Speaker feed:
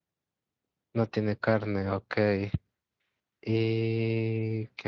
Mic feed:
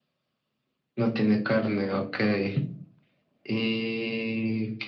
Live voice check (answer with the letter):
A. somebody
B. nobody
B